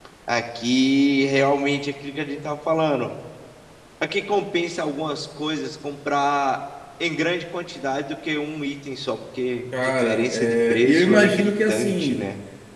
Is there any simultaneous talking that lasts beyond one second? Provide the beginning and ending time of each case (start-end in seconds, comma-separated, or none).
9.7-12.2